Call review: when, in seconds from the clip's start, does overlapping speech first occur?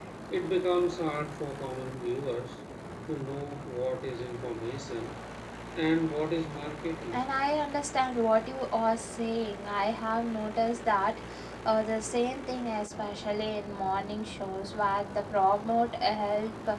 none

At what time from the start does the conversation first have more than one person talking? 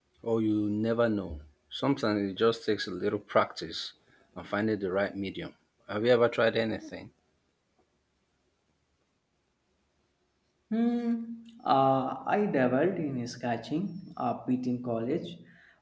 none

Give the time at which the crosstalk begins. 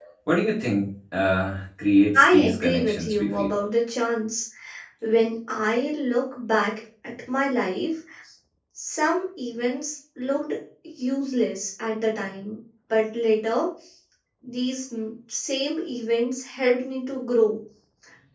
2 s

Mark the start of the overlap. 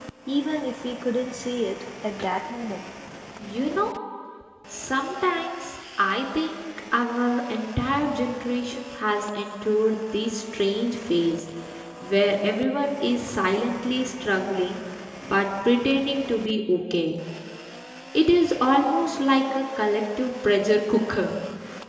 none

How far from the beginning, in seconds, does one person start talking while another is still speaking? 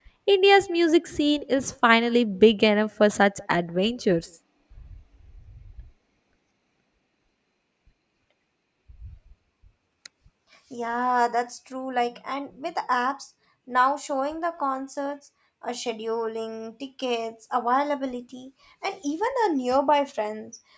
none

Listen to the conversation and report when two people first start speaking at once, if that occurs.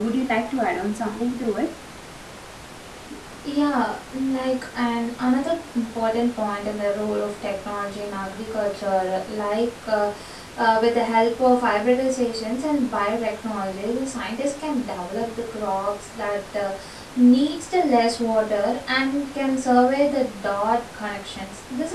none

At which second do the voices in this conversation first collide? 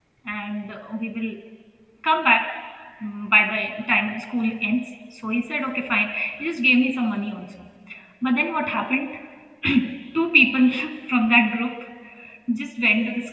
none

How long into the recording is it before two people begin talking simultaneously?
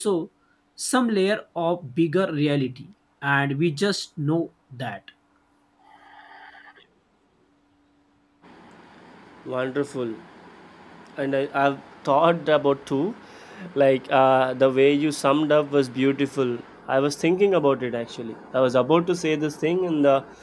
none

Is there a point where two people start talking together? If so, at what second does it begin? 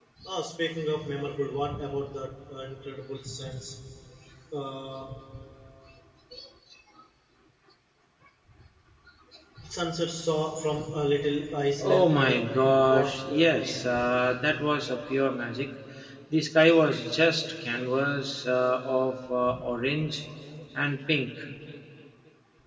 12 s

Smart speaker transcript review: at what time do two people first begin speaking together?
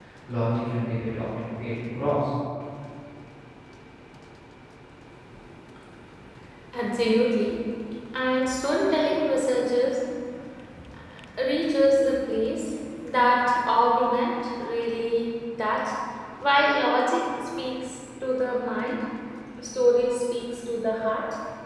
none

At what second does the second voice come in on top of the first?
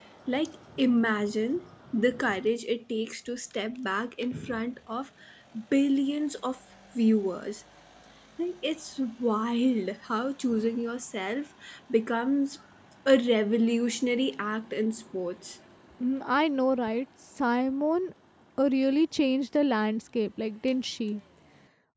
none

